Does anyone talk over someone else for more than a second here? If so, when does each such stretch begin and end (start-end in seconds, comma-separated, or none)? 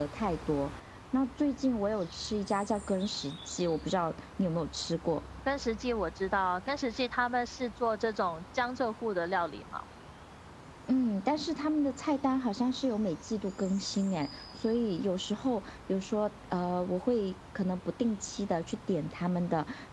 none